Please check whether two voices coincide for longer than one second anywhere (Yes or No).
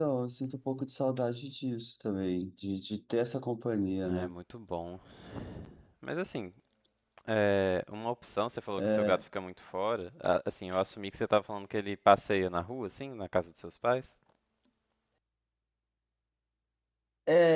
No